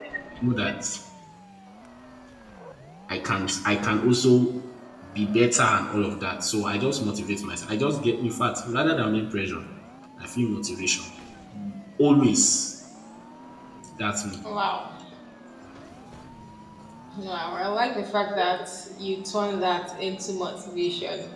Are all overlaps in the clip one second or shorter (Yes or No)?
Yes